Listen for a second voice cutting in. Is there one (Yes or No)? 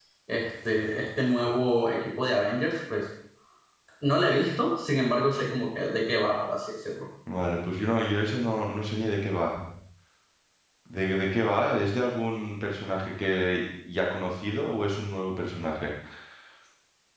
No